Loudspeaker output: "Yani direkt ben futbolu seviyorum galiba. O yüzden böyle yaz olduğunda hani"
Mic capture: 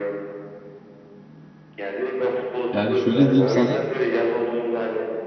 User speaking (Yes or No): Yes